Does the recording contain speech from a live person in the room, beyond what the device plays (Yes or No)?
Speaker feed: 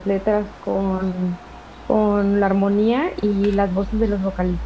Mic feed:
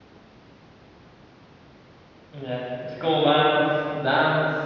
Yes